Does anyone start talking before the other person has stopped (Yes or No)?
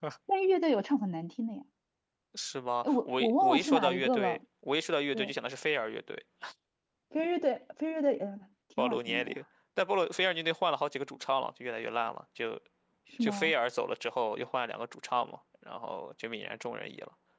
Yes